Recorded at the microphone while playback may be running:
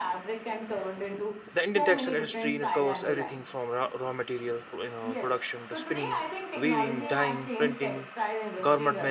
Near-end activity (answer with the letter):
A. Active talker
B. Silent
A